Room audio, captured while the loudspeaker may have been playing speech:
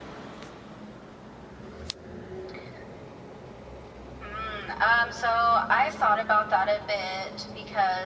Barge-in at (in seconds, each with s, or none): none